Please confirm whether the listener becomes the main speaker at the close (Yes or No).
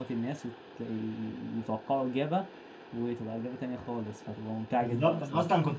Yes